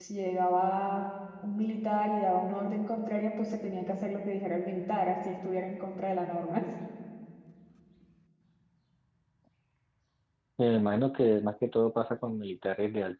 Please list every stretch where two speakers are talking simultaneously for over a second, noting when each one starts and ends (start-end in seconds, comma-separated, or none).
none